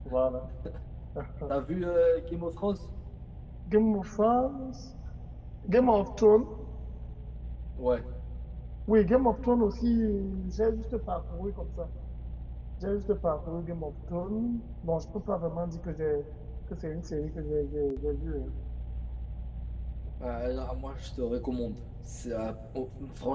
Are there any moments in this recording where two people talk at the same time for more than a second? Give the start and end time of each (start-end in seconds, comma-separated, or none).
none